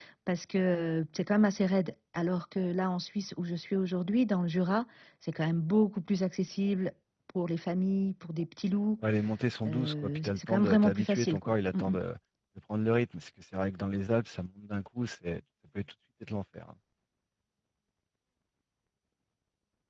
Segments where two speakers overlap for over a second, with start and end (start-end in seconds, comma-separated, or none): 9.7-12.0